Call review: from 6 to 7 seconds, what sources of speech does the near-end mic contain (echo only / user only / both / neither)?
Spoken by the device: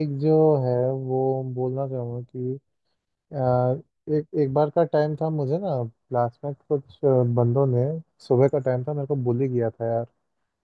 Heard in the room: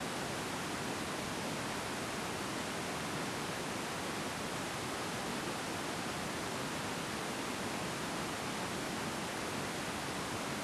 neither